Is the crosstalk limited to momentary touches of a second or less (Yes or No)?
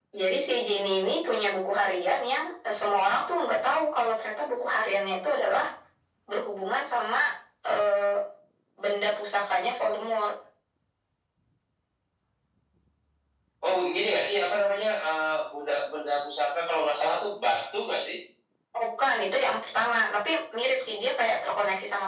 Yes